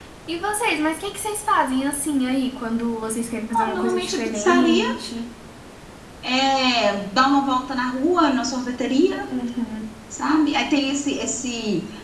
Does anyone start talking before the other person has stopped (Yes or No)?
Yes